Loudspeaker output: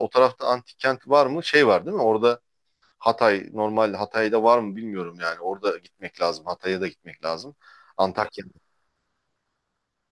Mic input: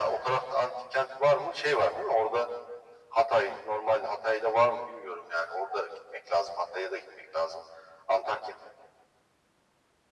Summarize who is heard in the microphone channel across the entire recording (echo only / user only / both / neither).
echo only